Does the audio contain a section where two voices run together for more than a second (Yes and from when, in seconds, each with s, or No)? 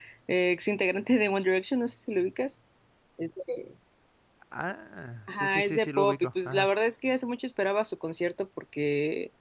Yes, from 5.3 s